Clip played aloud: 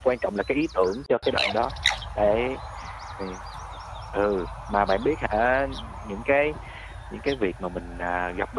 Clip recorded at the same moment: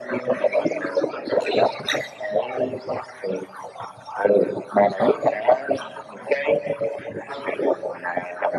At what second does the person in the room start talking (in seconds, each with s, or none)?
none